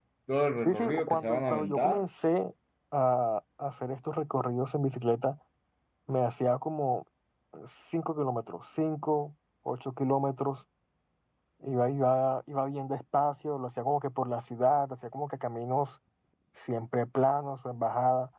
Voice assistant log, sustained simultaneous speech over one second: present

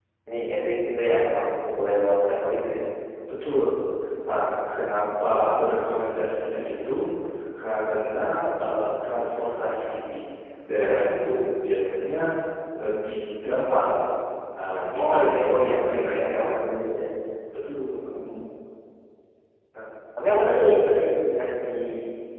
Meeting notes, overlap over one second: present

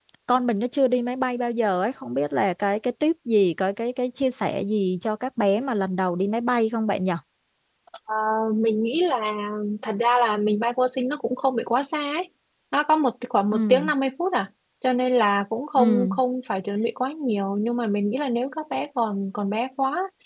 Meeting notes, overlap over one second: none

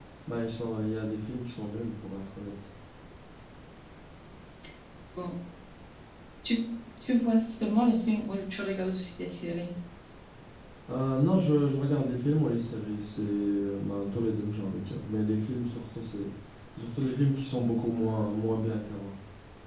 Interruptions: none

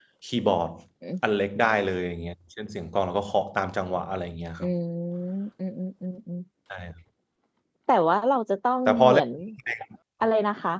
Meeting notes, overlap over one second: none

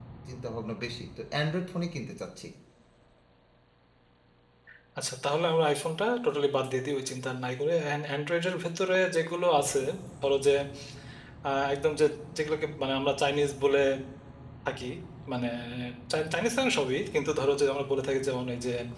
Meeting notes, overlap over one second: none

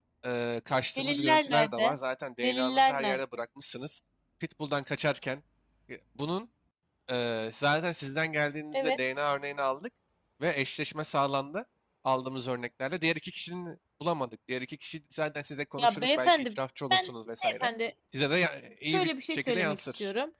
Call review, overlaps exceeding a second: present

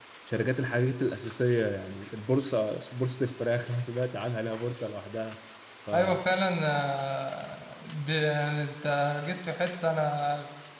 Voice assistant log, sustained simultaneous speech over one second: none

